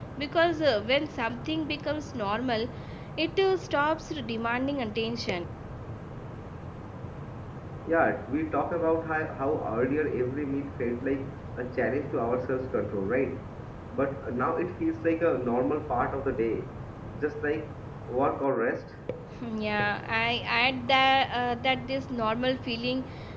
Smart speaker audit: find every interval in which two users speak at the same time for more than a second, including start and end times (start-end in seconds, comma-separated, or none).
none